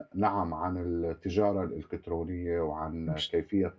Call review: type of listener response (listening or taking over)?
listening